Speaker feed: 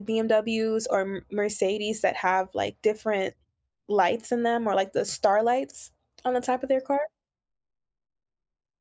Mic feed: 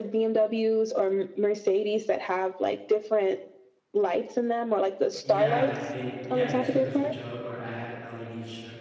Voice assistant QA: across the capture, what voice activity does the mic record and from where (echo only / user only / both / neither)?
both